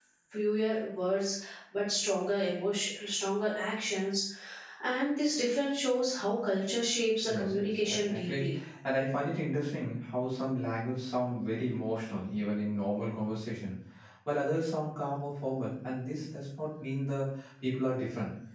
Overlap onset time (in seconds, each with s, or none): 7.3 s